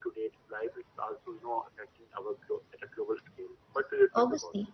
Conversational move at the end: taking over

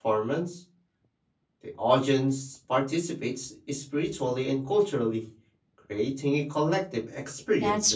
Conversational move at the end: taking over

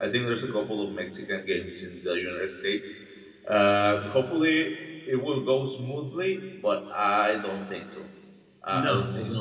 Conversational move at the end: taking over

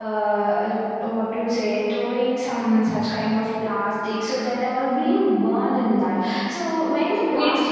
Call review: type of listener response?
taking over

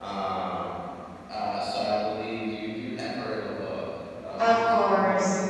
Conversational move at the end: taking over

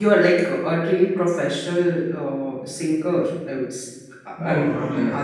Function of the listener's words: taking over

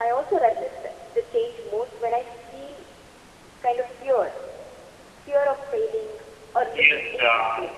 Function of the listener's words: taking over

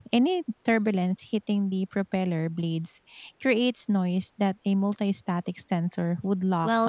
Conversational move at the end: taking over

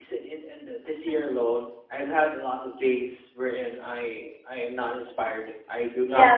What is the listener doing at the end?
taking over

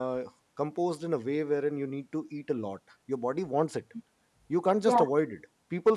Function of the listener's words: listening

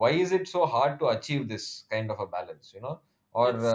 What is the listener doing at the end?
listening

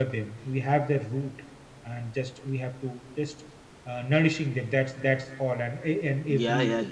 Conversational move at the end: taking over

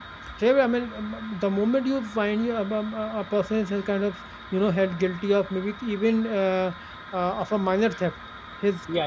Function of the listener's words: listening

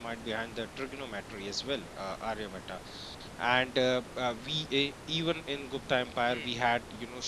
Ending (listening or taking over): listening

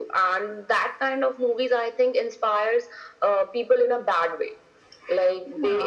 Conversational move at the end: listening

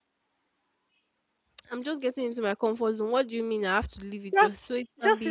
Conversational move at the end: taking over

